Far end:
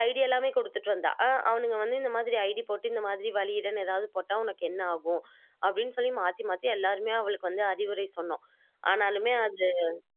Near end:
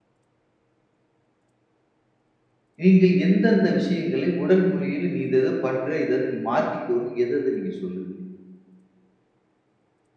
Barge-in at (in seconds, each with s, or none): 2.8 s